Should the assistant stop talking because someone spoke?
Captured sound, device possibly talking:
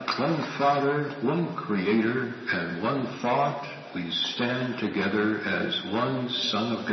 No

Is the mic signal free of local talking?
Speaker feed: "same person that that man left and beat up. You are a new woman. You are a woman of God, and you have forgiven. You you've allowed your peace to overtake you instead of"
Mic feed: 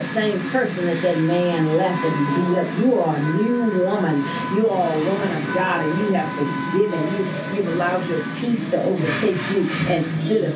No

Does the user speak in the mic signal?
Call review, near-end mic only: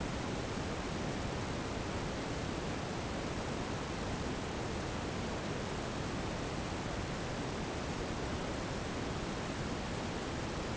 No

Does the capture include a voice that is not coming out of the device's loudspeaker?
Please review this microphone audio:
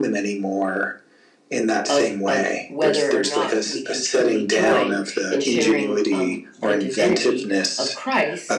Yes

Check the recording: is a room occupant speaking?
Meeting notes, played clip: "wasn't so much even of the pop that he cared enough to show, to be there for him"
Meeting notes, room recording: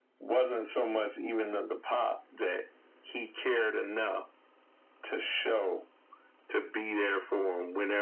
No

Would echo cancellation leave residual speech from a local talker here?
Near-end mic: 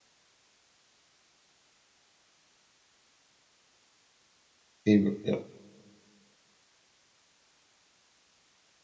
Yes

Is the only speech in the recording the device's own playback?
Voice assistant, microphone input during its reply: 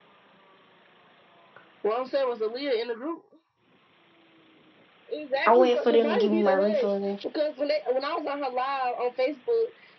No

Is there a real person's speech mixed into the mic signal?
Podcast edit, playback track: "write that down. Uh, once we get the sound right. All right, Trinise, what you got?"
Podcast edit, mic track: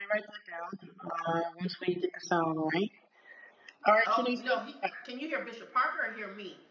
Yes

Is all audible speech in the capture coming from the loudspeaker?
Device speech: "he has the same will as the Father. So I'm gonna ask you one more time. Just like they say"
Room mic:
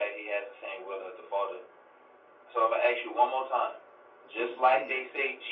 No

